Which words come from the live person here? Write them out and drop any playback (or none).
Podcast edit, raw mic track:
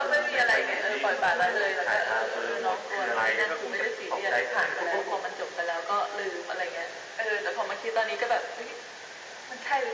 none